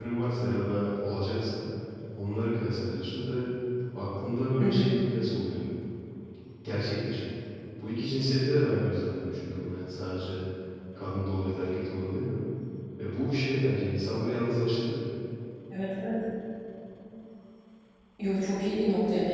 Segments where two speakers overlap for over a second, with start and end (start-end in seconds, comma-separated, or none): none